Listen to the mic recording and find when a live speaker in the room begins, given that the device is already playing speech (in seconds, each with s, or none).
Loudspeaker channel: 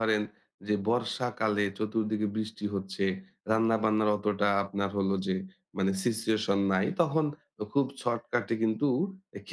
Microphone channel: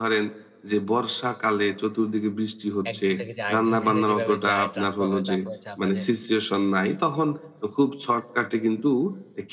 2.9 s